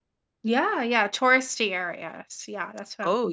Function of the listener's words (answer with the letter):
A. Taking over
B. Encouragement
A